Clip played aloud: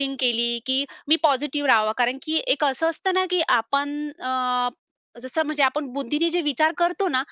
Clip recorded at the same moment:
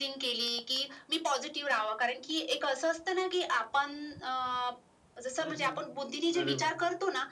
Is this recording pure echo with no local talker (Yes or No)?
No